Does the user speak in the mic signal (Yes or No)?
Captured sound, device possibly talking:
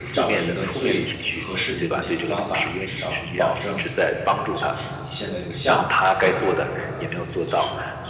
Yes